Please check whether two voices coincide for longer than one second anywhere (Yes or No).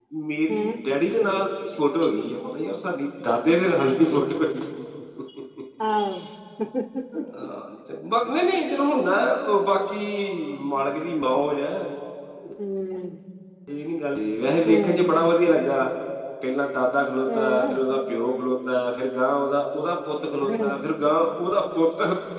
No